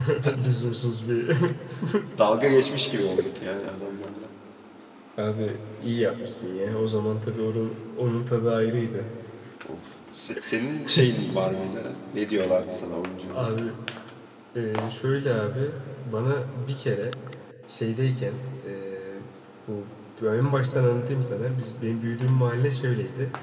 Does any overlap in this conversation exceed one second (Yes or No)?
No